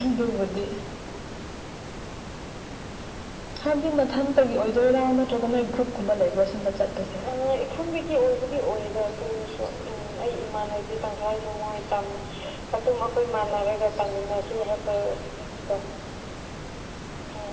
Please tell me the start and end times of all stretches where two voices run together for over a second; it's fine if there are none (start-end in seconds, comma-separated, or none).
none